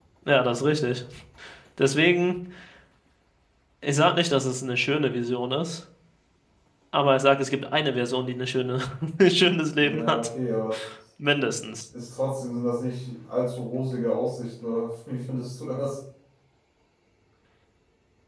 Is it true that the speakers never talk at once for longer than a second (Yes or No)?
Yes